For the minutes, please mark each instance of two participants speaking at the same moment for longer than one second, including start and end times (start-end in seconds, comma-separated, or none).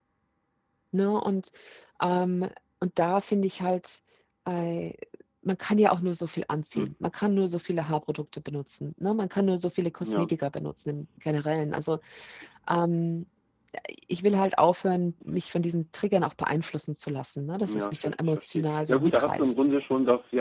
17.6-19.5